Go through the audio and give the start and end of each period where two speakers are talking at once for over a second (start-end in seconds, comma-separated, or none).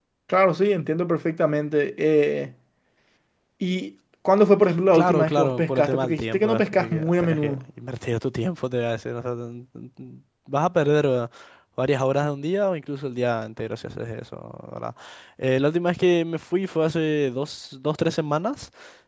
4.9-7.6